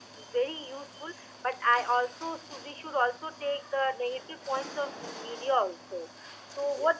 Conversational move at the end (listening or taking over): listening